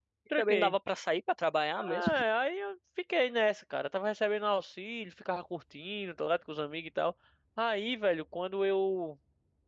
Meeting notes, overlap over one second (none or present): none